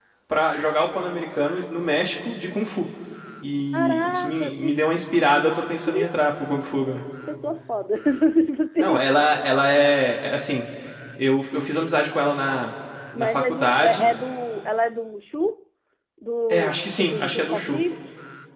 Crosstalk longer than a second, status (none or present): present